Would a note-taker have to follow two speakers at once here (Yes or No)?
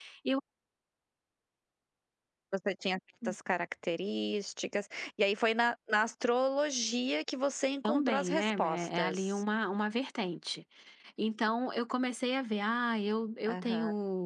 Yes